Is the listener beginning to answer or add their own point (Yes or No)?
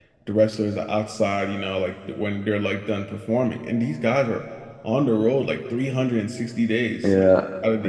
No